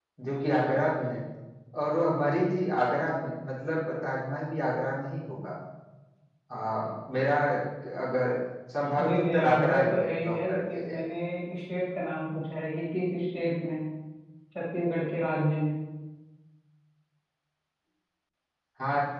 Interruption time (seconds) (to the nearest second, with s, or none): 9 s